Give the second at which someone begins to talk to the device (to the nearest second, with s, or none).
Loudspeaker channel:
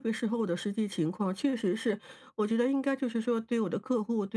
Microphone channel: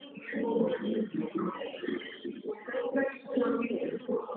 none